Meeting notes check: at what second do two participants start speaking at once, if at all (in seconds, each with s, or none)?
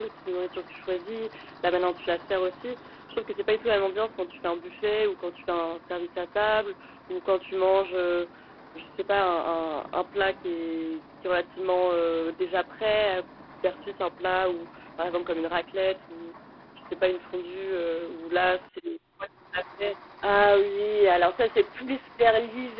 none